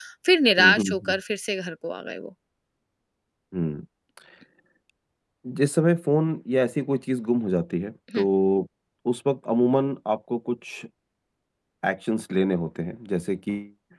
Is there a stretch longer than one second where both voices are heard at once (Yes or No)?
No